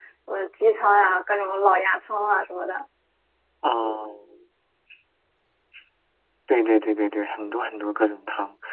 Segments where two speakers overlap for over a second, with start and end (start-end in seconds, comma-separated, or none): none